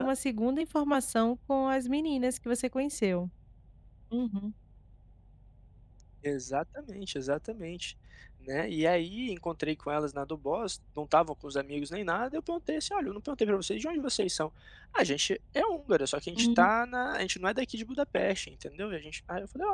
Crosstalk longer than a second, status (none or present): none